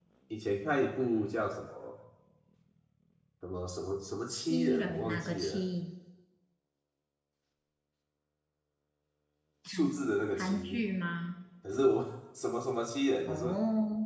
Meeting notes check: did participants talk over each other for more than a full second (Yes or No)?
Yes